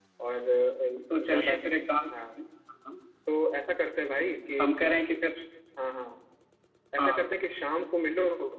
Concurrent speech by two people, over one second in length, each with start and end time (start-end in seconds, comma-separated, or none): none